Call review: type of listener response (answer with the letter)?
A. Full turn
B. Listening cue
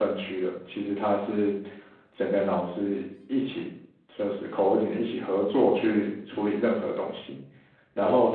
B